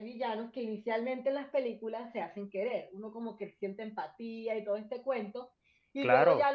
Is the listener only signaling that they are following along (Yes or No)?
Yes